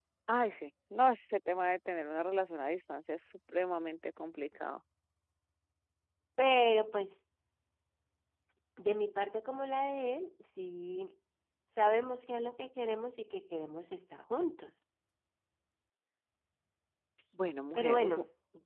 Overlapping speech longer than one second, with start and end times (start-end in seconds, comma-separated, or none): none